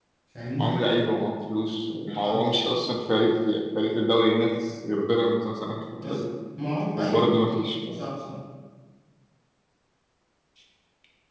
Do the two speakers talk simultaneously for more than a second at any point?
No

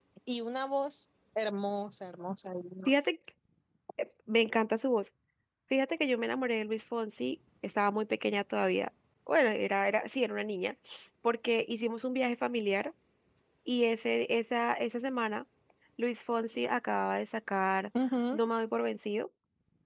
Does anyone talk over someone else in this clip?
No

